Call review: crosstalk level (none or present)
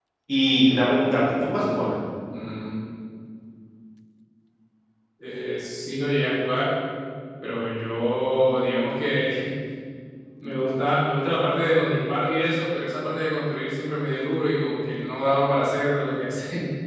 none